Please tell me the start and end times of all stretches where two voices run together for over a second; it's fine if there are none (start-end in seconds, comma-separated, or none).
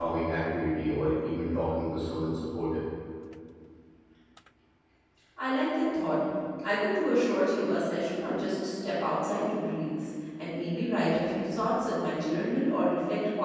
none